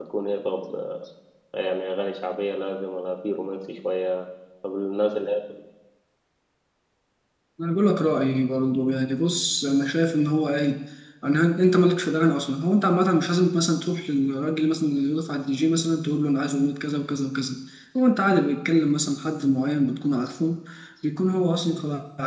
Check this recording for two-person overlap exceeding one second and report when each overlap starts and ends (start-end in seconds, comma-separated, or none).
none